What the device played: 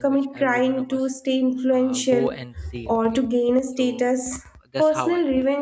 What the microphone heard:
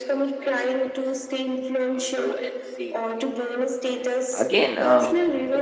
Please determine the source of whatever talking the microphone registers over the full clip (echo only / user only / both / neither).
both